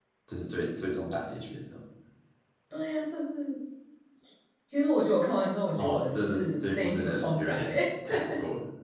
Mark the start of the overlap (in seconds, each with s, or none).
5.8 s